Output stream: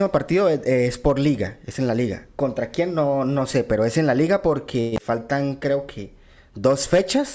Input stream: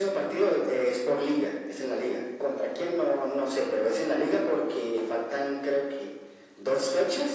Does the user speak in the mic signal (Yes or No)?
No